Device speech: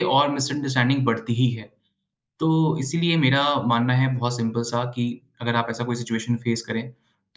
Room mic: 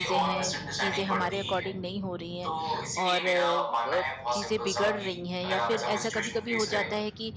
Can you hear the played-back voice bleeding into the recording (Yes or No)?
Yes